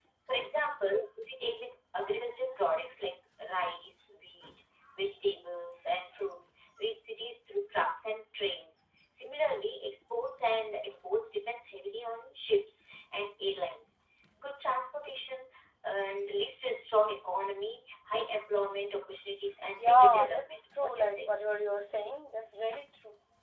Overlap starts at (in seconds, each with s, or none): 19.8 s